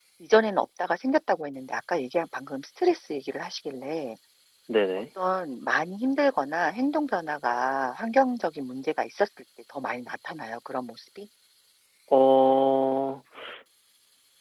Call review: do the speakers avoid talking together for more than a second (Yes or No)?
Yes